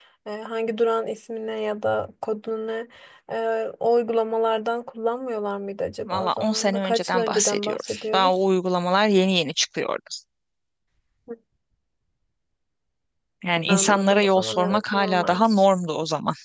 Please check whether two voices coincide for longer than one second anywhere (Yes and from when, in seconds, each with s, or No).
Yes, from 6.0 s